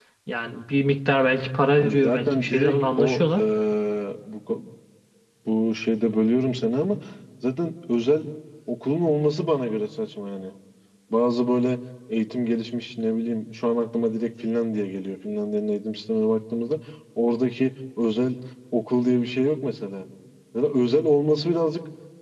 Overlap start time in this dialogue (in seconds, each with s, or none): 1.8 s